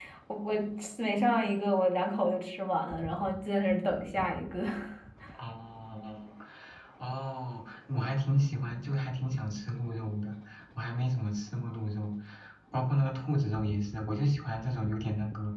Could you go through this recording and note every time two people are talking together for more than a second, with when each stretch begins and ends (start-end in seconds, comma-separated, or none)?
none